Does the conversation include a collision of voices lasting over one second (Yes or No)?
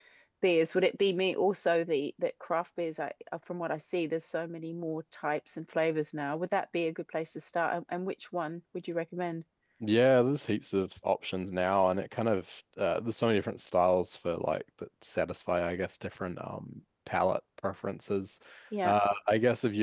No